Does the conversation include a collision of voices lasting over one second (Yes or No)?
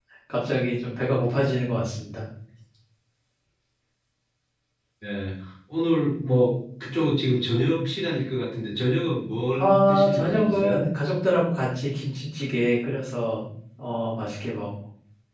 Yes